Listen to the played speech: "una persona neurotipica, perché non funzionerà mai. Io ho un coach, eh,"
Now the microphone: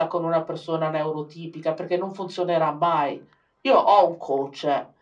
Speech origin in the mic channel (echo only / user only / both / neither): echo only